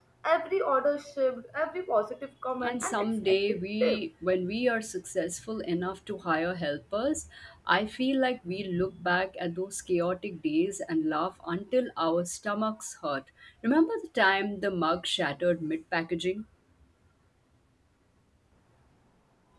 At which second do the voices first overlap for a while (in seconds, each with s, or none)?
2.6 s